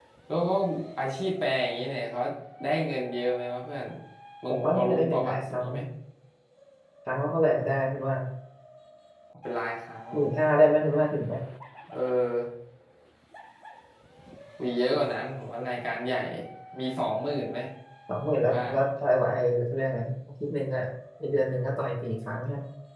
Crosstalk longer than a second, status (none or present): present